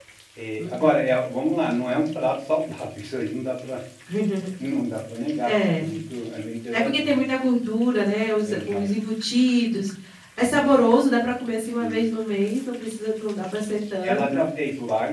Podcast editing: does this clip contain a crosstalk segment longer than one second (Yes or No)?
No